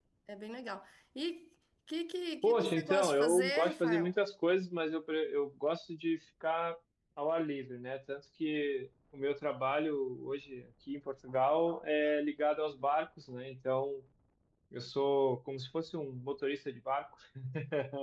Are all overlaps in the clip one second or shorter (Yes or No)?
No